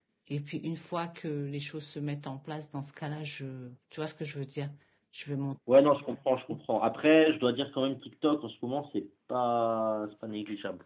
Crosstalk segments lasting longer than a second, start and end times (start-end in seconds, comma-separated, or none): none